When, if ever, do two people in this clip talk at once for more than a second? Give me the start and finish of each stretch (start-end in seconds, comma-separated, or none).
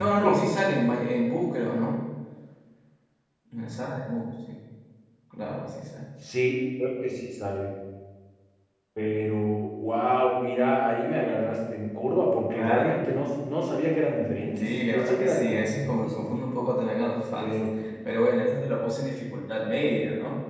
14.6-16.3